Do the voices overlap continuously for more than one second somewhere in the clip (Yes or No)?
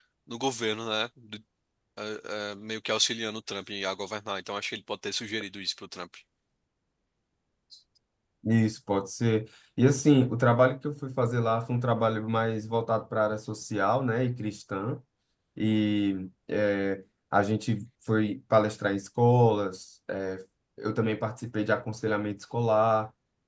No